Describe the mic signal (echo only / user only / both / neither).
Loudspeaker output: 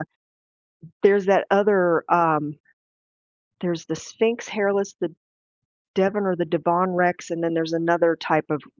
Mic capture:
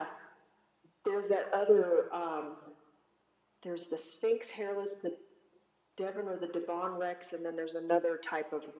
echo only